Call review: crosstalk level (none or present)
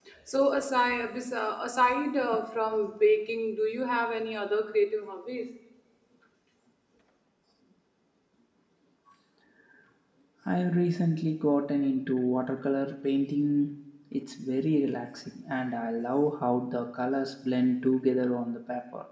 none